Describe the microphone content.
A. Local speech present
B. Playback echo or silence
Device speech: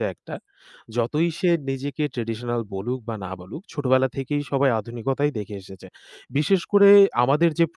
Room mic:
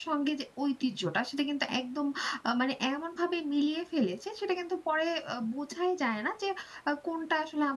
A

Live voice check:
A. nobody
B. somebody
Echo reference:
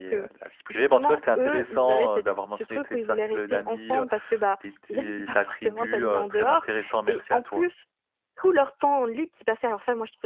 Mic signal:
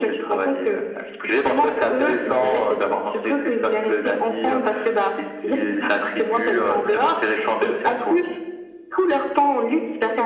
A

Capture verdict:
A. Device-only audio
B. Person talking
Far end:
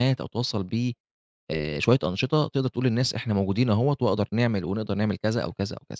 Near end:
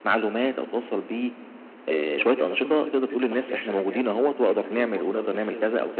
B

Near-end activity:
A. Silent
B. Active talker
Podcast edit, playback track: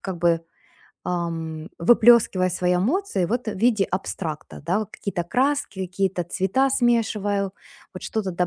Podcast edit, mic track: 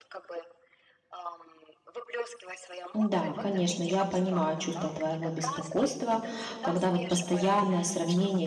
B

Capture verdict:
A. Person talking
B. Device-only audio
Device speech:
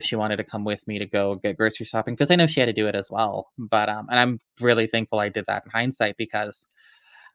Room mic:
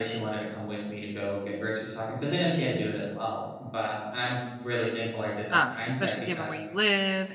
A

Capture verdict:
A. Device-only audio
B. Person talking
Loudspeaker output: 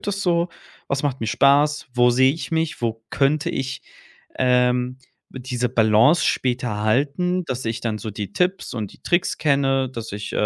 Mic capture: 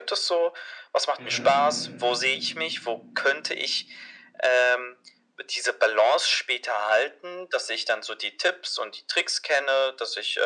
B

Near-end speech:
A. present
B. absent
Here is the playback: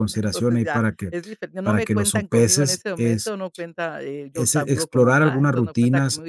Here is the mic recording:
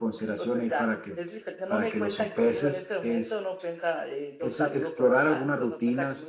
B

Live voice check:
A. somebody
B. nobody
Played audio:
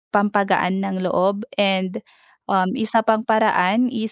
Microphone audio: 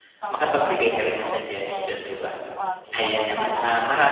A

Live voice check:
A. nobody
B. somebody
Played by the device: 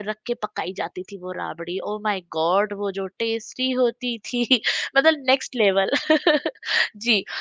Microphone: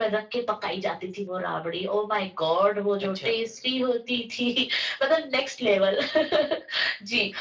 B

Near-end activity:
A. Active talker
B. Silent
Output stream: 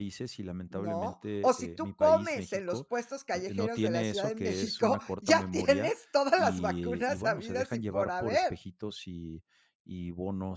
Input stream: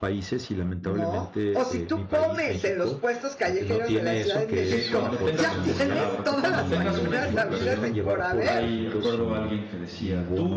A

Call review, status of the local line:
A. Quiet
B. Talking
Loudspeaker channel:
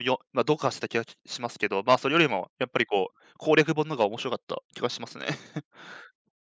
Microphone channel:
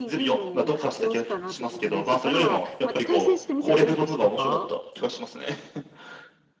B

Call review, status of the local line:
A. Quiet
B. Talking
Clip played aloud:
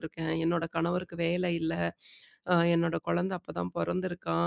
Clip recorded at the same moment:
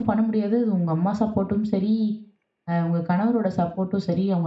B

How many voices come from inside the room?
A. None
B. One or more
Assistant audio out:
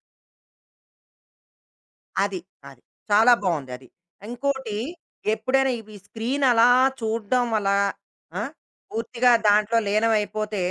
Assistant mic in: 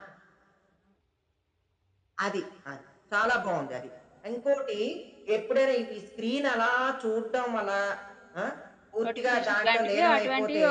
B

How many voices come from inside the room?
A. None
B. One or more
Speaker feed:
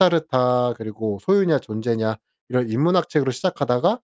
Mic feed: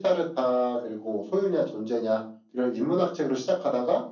A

